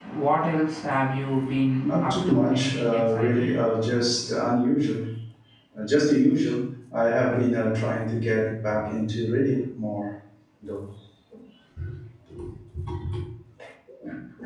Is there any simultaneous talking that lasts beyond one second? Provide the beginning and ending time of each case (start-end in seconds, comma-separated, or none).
1.8-3.5